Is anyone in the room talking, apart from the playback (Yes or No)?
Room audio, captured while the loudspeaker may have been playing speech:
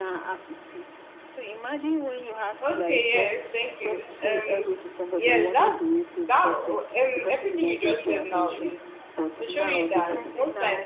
Yes